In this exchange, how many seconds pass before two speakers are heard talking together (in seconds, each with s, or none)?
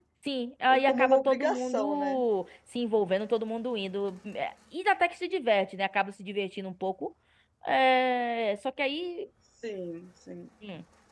0.8 s